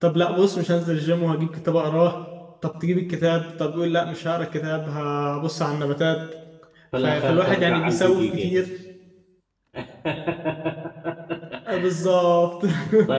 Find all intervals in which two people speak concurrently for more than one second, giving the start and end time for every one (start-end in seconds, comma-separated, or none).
7.0-8.5